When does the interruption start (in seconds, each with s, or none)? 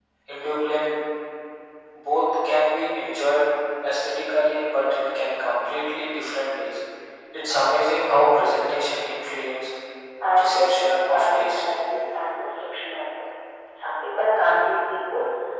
10.4 s